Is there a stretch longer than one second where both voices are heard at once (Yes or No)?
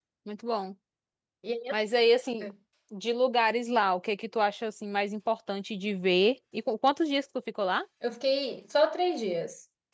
No